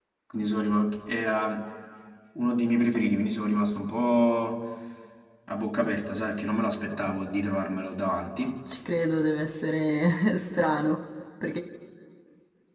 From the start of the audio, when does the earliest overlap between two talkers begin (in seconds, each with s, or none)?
none